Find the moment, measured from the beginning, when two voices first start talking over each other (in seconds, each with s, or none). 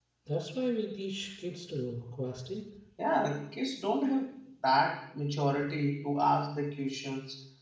none